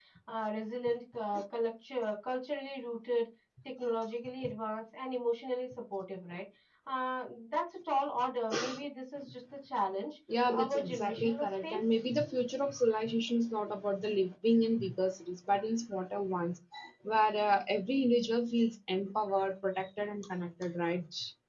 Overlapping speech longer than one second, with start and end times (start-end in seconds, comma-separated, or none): 10.5-11.8